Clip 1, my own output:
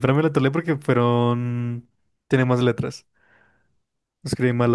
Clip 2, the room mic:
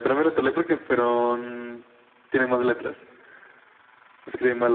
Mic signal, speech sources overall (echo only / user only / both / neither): echo only